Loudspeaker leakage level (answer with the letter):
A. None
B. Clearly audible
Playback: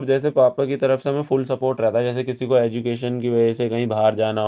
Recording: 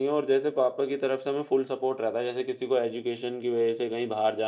B